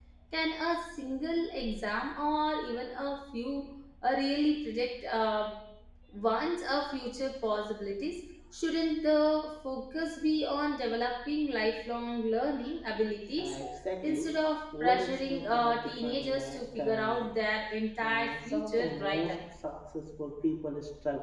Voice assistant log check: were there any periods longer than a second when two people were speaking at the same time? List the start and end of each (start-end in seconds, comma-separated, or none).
14.8-17.3, 18.0-19.3